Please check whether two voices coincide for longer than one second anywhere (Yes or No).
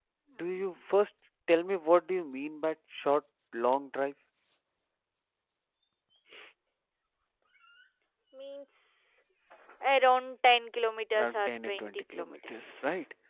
Yes